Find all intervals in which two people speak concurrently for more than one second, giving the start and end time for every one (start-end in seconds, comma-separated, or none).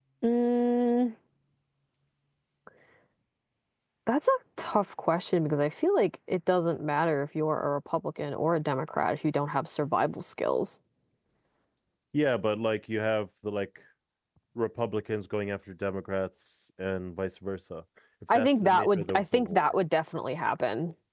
18.3-19.7